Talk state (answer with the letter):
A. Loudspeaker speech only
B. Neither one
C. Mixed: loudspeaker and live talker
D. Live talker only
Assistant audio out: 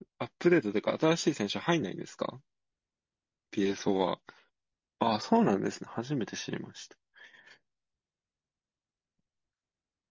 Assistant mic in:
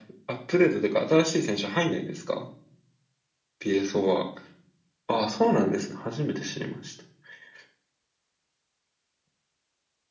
A